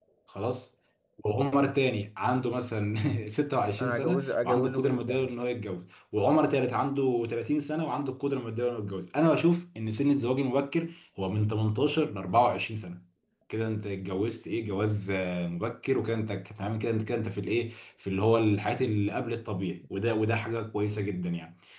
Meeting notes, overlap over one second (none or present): present